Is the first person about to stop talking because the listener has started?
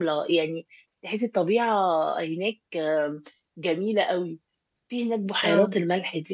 No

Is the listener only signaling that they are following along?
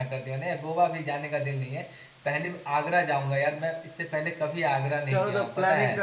No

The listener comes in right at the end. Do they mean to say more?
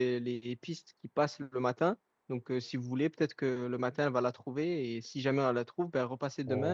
Yes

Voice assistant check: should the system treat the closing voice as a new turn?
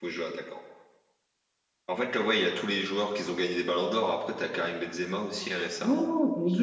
Yes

